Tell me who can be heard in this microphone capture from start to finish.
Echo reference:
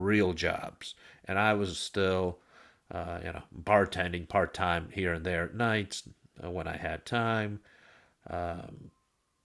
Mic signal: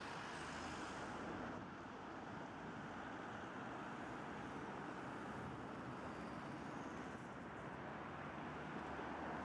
neither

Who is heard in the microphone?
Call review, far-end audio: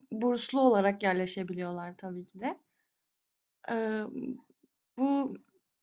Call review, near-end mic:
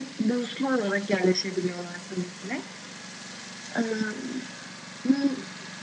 echo only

